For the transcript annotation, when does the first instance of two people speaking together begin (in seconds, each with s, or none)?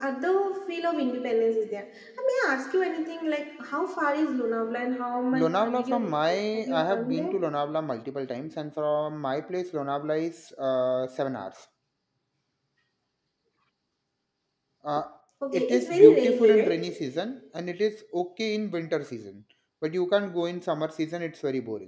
5.3 s